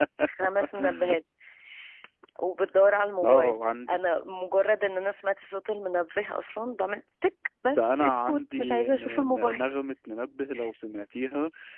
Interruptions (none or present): present